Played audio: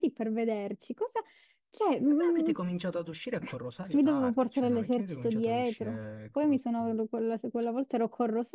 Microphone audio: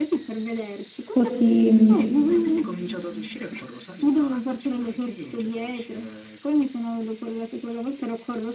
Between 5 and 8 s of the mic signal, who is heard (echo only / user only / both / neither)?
echo only